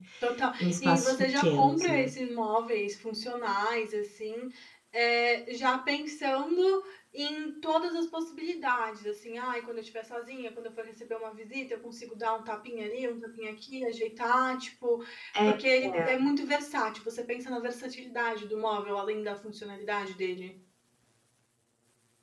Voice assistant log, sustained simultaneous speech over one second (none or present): present